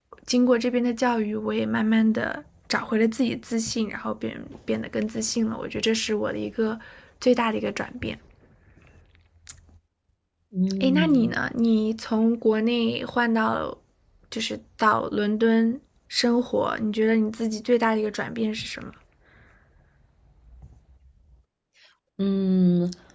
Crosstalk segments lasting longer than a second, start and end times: none

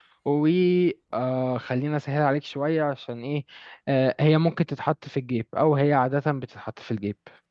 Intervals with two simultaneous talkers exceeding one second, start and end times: none

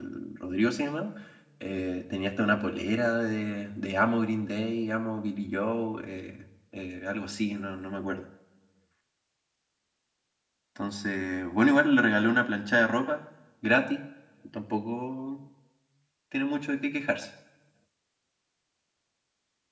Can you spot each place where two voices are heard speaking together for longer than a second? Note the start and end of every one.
none

